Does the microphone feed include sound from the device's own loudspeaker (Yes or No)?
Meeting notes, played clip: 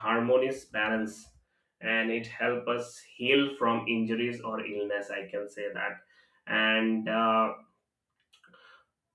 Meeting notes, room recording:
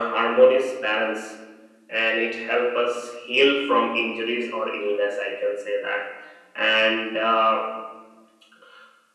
Yes